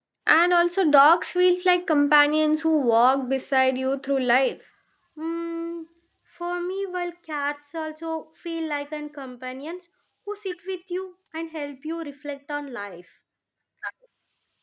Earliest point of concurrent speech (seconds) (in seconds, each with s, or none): none